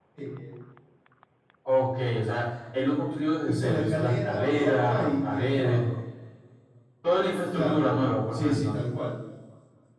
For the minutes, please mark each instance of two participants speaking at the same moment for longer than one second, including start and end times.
3.4-5.9

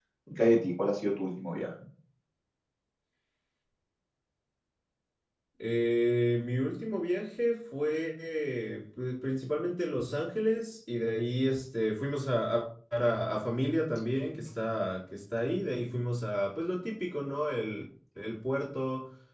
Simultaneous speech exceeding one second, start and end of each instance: none

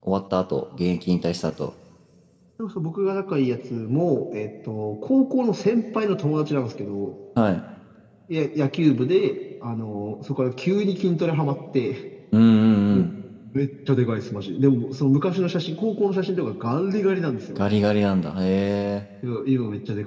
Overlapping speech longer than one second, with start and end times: none

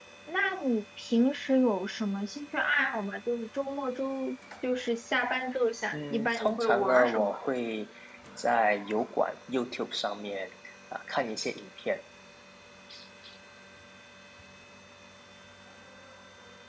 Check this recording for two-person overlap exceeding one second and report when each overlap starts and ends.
5.9-7.4

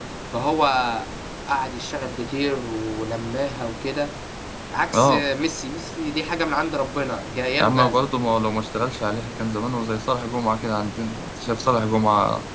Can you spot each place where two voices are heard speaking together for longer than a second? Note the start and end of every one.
none

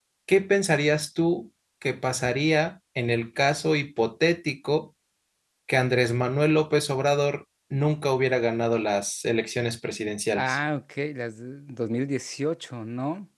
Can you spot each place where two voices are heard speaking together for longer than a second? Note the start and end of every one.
none

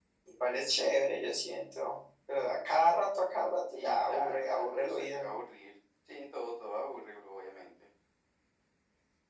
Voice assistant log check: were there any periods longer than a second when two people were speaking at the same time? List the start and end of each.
3.7-5.4

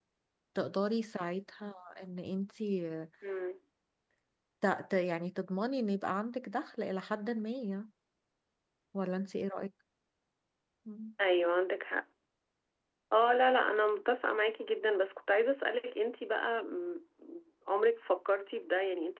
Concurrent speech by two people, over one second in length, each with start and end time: none

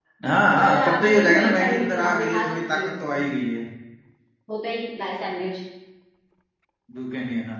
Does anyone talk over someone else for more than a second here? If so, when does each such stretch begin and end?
0.5-3.2

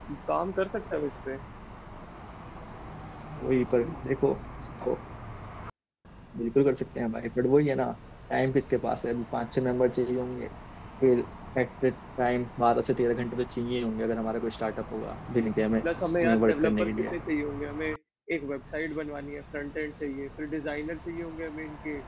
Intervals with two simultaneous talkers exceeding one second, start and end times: 15.8-17.1

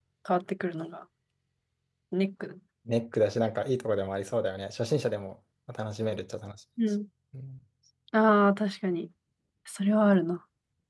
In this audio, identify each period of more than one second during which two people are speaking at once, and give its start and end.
none

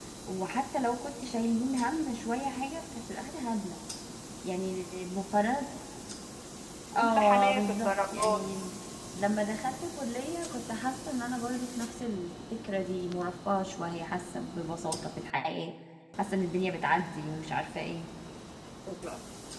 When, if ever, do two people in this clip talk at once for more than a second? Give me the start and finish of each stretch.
7.0-8.6

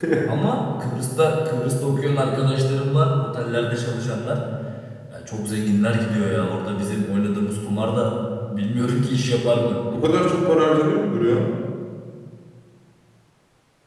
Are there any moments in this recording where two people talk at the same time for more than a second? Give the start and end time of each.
none

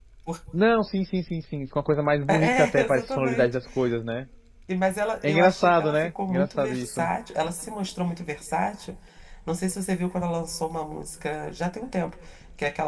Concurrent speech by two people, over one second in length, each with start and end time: 2.3-3.5, 5.2-7.1

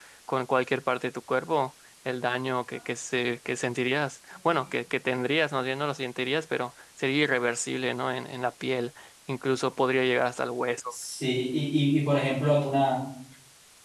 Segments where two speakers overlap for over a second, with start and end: none

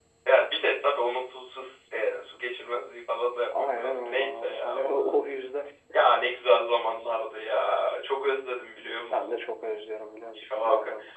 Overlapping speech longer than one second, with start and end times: 3.6-5.2

